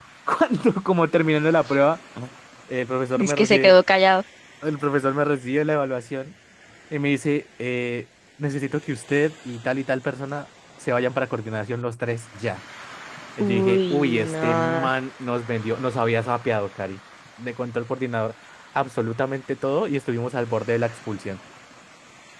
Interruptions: present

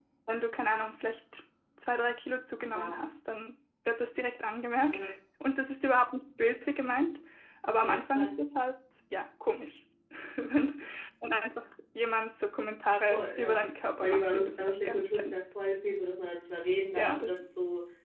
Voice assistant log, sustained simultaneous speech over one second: present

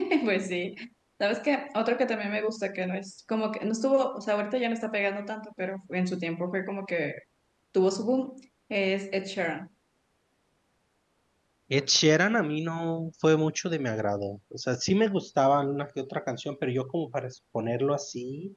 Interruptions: none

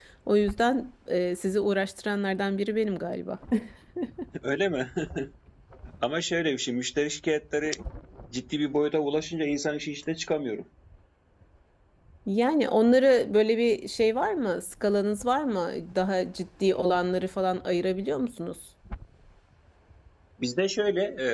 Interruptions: none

